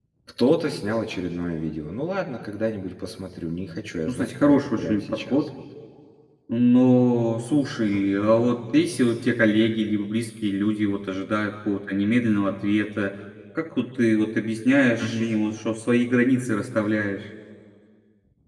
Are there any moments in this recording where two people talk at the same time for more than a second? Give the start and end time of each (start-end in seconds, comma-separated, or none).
4.1-5.4